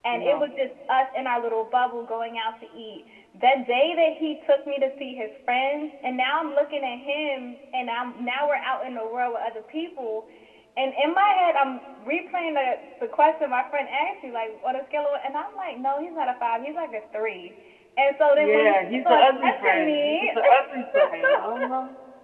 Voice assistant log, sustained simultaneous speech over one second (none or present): present